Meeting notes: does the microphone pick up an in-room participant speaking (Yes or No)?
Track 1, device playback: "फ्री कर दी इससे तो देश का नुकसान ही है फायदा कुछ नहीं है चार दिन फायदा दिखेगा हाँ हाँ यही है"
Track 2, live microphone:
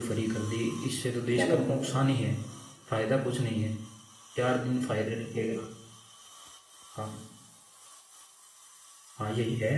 Yes